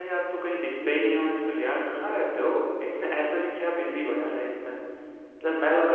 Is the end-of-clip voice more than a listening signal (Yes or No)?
No